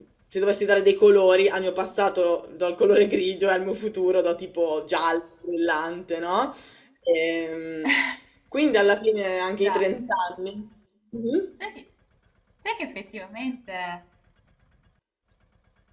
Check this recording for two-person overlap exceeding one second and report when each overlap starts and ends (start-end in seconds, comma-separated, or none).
none